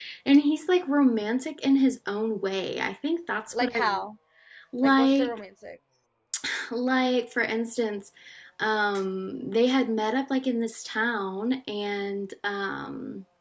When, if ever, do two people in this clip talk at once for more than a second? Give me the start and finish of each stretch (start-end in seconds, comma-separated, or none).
none